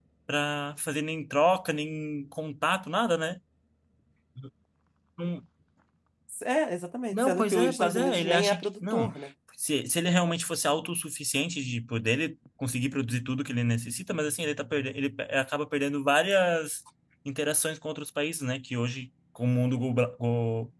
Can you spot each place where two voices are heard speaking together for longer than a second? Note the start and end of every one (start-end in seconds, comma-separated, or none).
7.1-9.1